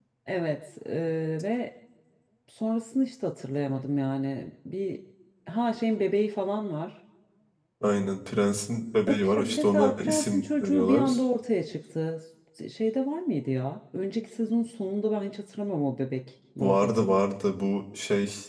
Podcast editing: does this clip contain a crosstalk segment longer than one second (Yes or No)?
Yes